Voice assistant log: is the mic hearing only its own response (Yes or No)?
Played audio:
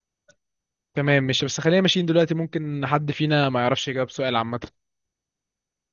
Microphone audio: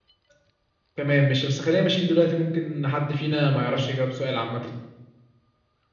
Yes